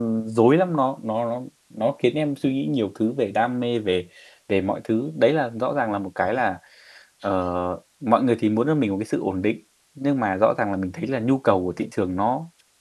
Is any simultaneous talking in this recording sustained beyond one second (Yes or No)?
No